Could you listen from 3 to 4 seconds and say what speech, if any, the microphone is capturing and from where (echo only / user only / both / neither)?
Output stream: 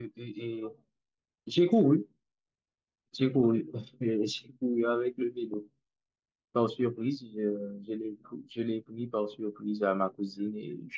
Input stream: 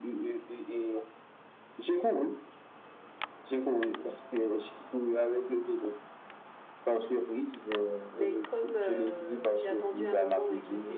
echo only